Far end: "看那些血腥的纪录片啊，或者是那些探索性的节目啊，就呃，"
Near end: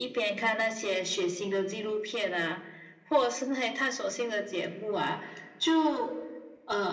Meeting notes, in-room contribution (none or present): none